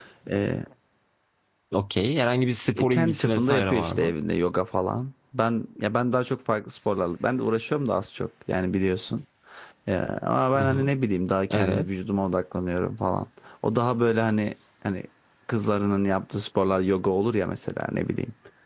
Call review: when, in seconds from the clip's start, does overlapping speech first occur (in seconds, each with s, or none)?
2.8 s